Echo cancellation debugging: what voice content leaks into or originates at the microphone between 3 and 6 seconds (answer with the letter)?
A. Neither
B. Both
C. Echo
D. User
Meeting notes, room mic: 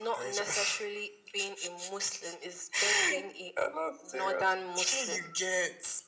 C